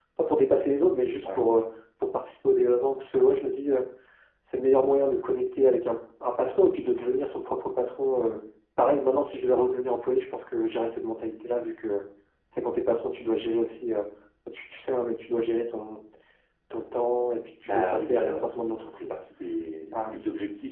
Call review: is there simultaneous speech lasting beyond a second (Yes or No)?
Yes